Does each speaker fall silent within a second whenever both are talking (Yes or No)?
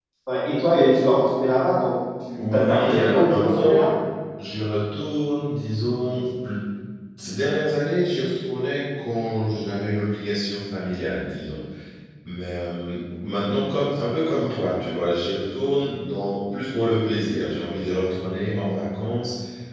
No